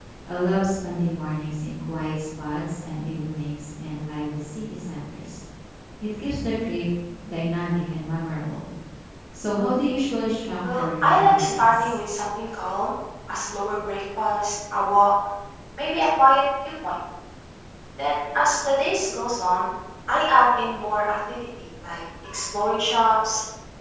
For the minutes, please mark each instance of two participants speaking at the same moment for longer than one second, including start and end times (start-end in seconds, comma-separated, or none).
10.7-12.0